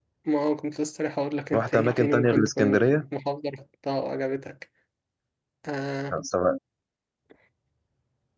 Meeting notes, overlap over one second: present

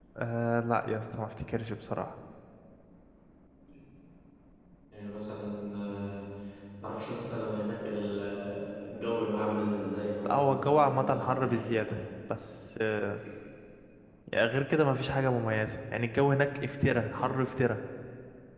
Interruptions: present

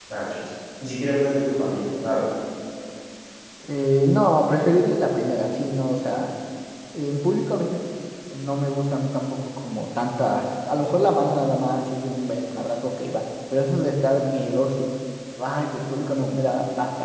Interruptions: none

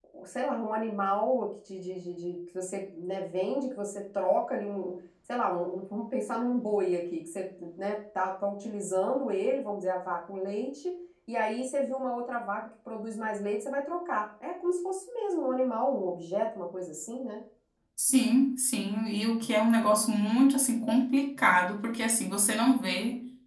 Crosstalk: none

